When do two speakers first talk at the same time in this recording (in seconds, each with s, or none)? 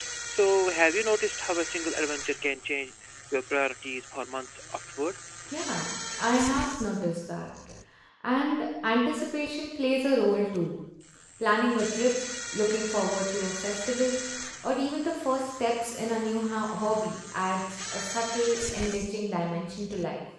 none